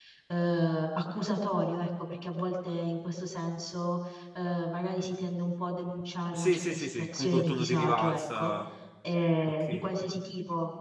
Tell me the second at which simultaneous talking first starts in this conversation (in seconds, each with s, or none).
6.3 s